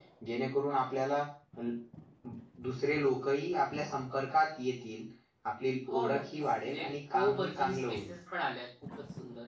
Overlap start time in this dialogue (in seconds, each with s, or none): 5.9 s